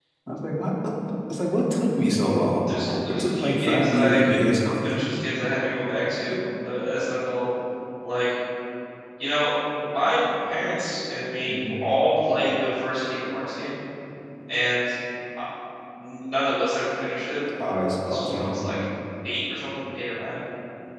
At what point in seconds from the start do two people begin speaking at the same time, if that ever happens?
3.1 s

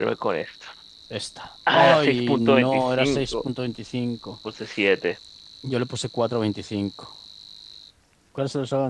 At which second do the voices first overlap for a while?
1.7 s

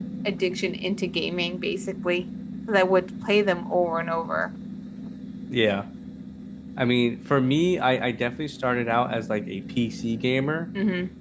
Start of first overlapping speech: none

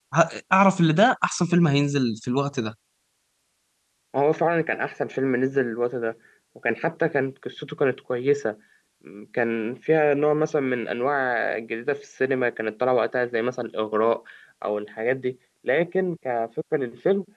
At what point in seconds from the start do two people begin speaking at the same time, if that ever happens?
none

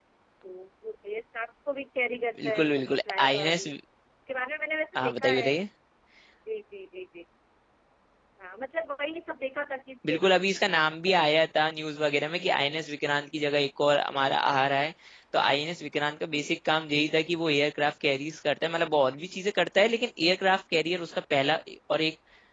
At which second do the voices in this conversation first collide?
2.4 s

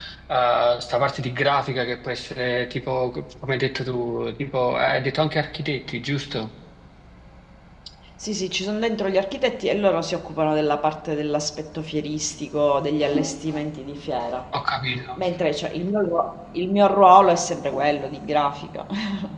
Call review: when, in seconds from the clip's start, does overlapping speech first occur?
none

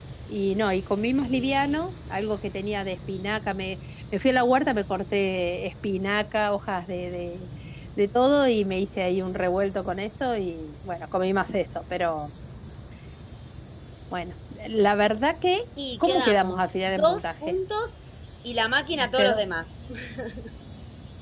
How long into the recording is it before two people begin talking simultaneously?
16.0 s

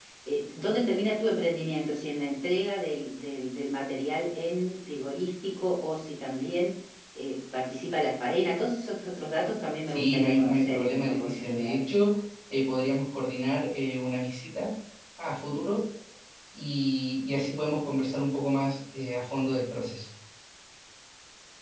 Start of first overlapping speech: 9.9 s

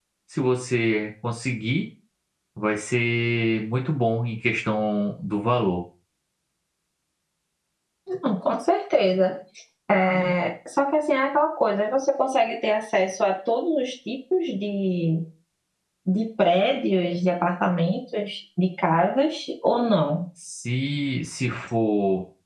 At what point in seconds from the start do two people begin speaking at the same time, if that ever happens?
none

